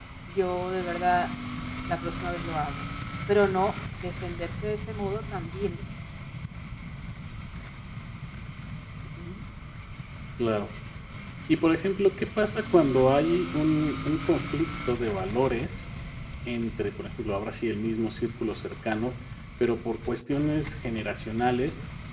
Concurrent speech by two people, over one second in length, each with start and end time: none

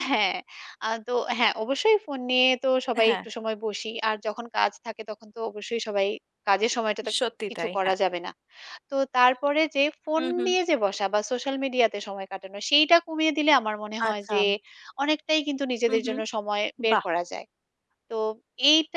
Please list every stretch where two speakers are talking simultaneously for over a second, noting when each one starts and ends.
none

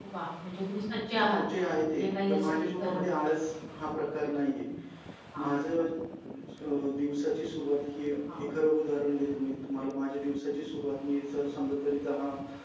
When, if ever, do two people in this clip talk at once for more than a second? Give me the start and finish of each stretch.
1.3-3.0

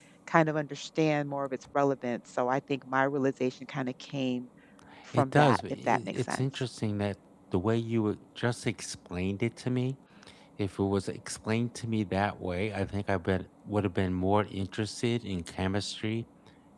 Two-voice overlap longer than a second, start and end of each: 5.1-6.4

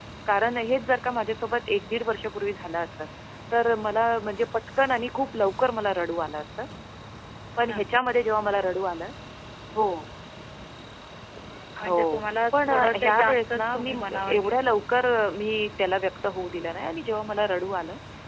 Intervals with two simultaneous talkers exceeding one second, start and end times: 12.6-15.1

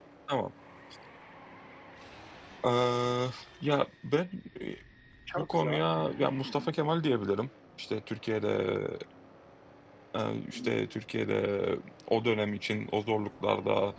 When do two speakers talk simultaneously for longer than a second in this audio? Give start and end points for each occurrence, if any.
5.4-6.7

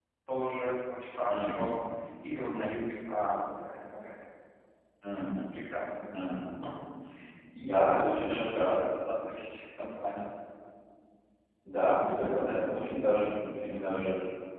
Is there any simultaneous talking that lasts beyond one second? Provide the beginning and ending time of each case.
7.6-8.8

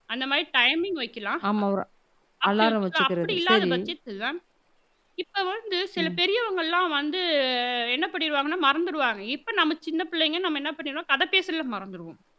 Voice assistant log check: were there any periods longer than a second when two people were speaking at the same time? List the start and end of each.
2.5-3.7

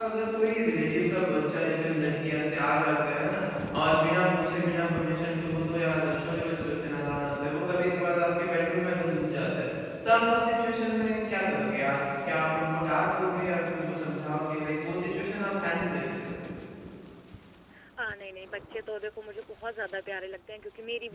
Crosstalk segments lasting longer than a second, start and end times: none

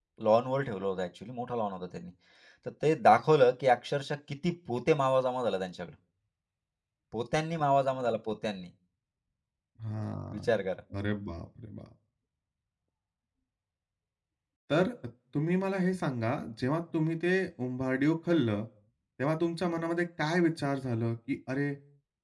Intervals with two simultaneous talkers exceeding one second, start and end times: none

